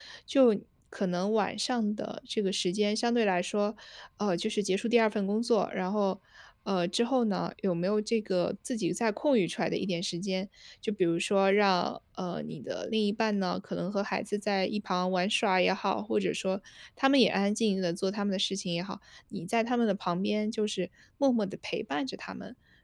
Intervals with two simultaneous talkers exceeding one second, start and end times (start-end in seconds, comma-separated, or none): none